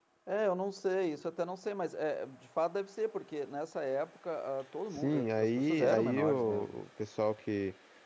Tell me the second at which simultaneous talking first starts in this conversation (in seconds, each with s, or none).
4.9 s